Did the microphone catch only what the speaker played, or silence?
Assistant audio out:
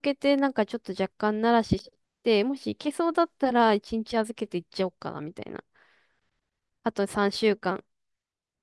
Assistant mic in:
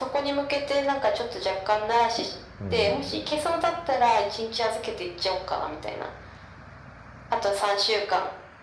No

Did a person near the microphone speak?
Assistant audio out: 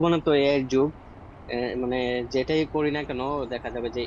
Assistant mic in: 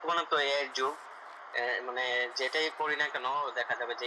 No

